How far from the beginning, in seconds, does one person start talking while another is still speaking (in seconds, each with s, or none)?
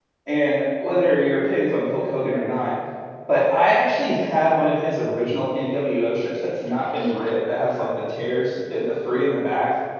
none